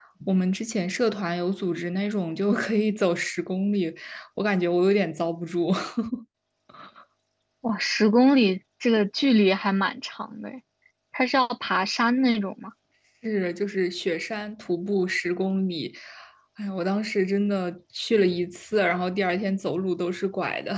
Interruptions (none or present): none